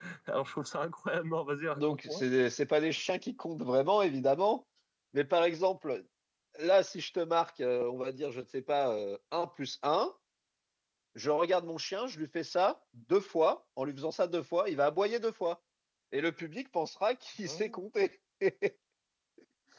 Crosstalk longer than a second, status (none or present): none